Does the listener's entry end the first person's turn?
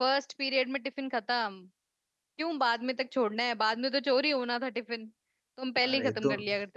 Yes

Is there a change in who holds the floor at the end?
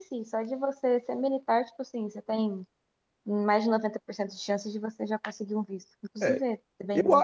Yes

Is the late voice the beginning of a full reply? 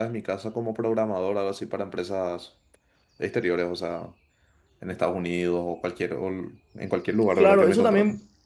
Yes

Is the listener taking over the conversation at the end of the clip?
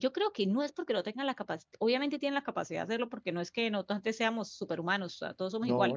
No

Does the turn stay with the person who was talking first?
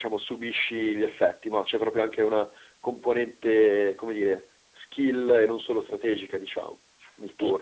No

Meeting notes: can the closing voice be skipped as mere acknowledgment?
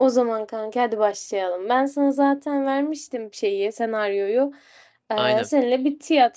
Yes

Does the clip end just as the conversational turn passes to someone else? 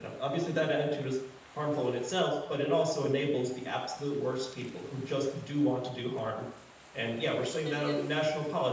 No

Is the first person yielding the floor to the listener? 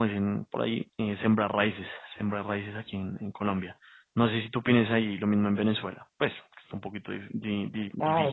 Yes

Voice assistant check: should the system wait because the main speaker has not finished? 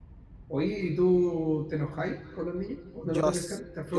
No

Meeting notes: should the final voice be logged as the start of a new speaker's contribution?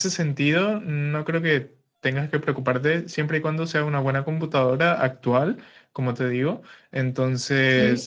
No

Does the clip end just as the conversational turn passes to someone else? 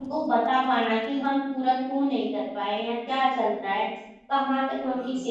No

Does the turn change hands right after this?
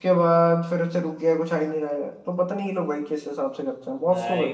Yes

